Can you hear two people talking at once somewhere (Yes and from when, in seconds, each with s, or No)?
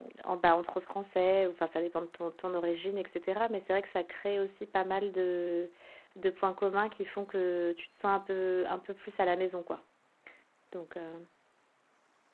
No